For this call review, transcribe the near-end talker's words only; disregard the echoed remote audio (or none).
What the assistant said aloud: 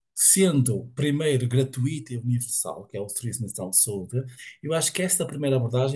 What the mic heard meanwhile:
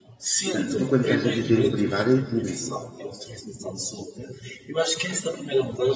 Ah, Tu quando estás a dizer o privado é o público.